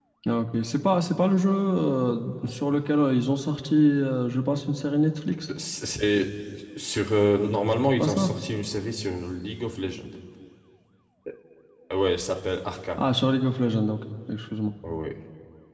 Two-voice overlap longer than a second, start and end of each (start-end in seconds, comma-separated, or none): none